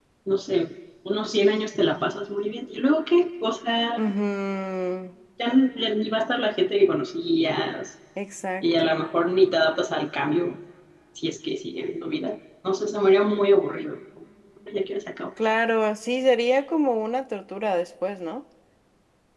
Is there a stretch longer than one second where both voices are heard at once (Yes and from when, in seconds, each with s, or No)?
No